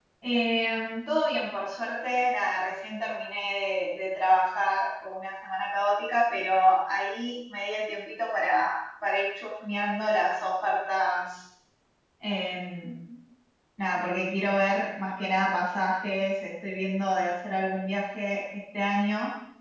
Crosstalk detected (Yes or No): No